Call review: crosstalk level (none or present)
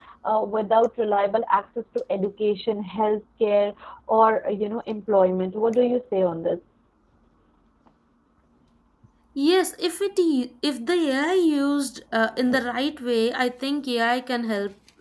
none